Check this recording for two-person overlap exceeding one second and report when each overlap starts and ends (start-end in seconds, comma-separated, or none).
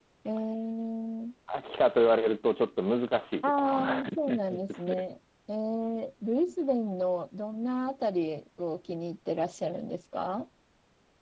3.4-5.0